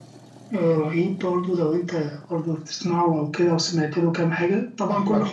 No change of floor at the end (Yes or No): No